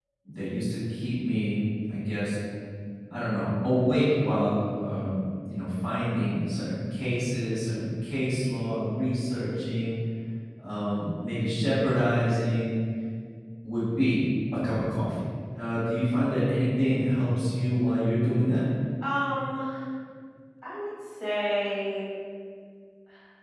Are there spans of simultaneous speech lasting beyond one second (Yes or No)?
No